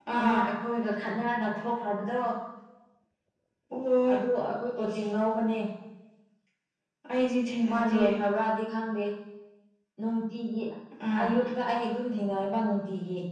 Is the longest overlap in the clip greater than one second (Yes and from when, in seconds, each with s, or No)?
No